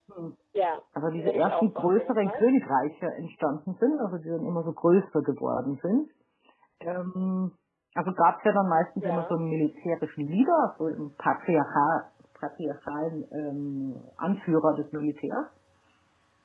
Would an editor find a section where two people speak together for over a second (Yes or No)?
Yes